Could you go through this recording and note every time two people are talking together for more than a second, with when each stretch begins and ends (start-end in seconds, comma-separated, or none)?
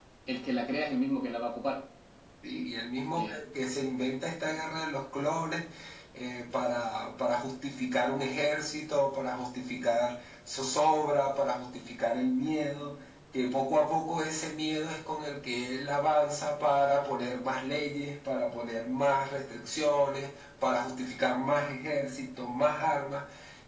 none